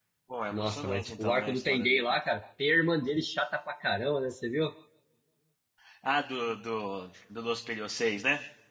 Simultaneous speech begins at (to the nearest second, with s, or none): 1 s